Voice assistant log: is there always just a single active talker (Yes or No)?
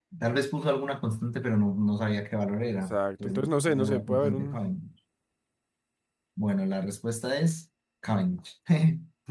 No